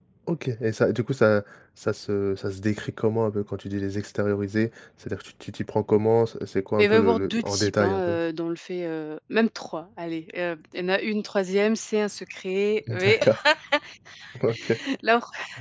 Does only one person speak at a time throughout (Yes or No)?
No